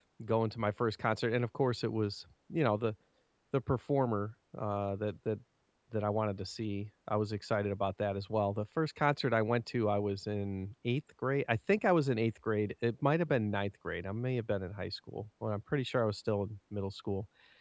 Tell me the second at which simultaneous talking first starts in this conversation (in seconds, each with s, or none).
none